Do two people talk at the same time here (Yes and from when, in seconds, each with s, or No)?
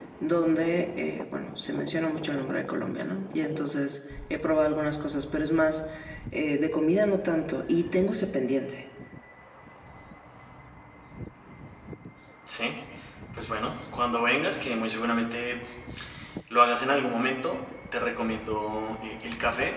No